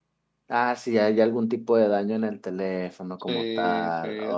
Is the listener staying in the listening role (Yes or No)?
No